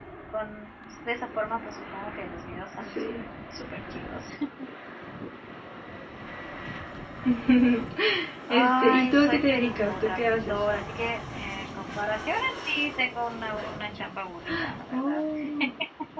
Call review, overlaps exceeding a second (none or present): present